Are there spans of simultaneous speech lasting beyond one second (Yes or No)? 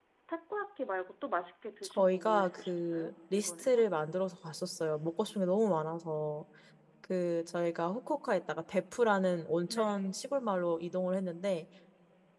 Yes